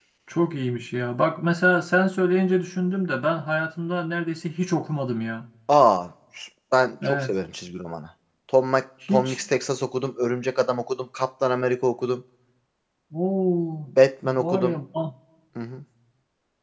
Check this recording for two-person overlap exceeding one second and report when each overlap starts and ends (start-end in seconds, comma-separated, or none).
none